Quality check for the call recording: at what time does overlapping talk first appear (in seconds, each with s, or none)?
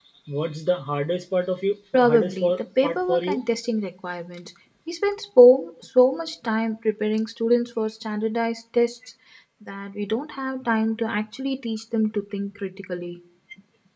1.9 s